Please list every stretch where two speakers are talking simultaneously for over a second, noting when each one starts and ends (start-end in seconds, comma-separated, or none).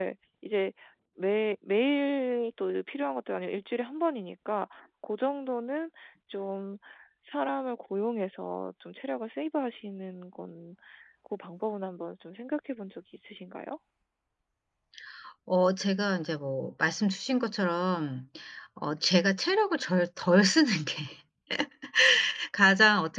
none